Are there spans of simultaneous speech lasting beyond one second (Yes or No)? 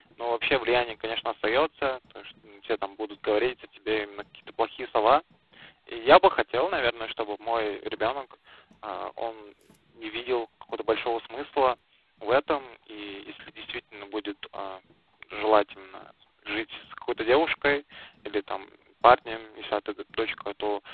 No